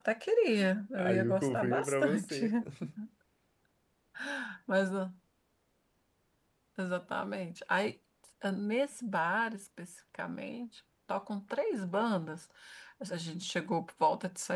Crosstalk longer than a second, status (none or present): present